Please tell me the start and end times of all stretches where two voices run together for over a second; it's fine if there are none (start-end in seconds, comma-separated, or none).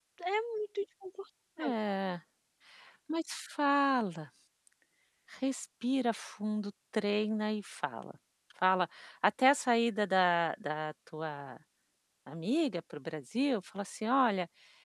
none